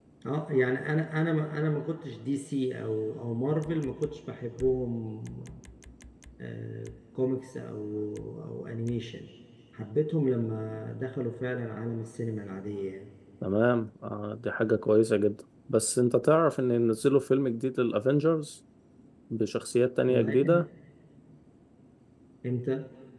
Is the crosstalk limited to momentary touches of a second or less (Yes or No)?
Yes